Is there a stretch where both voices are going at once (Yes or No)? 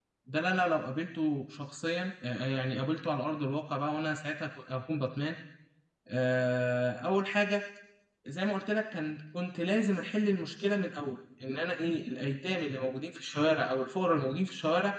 No